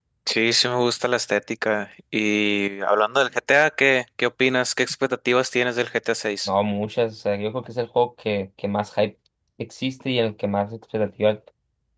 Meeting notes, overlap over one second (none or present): none